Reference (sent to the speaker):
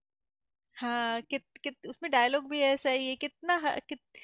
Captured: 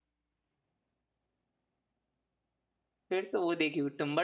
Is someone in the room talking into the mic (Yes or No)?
Yes